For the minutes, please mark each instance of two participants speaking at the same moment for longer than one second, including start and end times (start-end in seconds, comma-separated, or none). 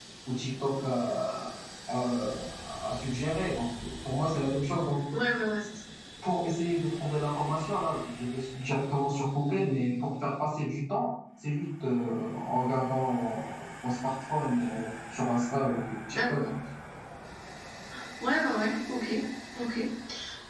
none